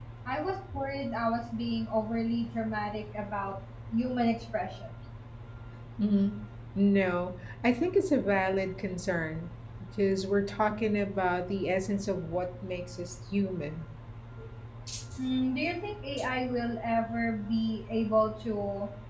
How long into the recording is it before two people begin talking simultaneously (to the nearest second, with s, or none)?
none